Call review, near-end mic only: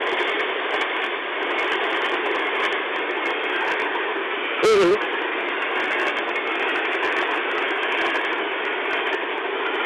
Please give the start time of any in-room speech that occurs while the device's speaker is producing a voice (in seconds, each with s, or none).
4.6 s